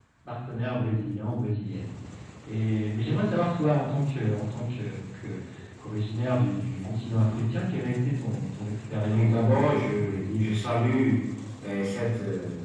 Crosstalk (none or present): present